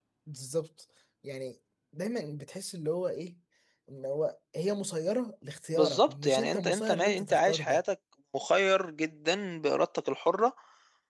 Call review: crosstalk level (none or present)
present